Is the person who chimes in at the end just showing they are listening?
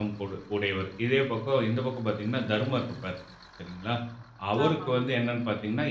Yes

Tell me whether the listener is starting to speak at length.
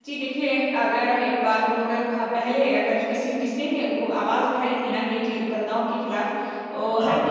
No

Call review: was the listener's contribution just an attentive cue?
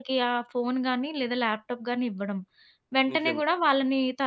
Yes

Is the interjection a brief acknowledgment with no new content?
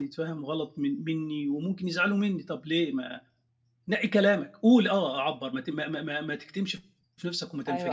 No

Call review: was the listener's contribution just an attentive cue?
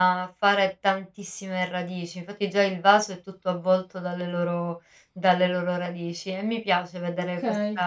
Yes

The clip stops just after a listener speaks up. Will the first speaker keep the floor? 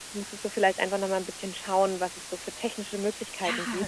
No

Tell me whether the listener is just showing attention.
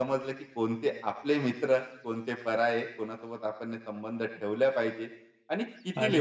No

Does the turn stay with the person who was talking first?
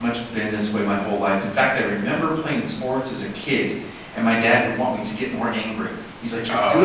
Yes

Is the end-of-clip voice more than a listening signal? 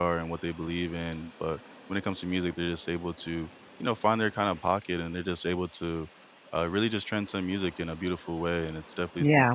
Yes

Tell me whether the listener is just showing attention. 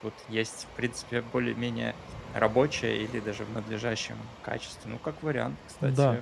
No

